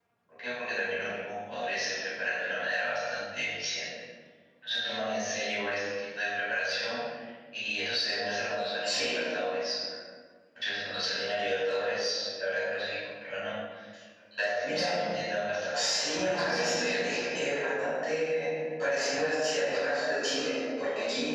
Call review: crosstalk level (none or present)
present